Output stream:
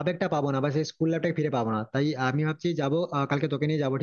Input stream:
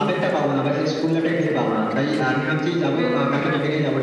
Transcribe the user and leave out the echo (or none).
হুম